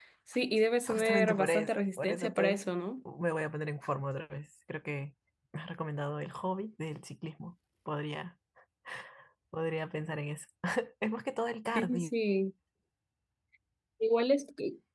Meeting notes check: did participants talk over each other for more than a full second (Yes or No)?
Yes